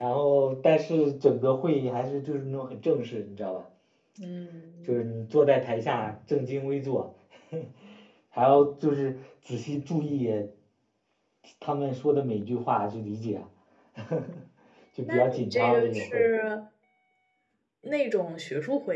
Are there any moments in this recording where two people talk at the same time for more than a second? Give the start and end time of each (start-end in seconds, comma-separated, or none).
15.0-16.2